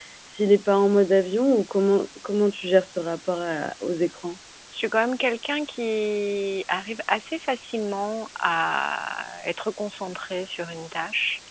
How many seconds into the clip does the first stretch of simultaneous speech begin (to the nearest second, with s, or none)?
none